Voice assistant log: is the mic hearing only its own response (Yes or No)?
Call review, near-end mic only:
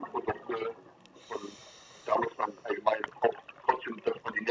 Yes